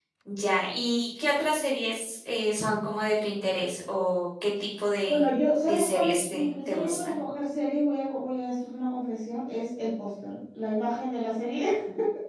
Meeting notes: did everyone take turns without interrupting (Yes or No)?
No